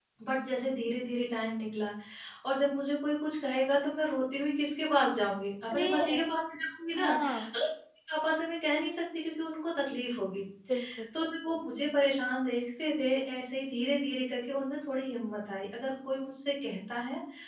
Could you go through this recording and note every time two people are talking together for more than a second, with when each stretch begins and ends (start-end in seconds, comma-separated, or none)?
none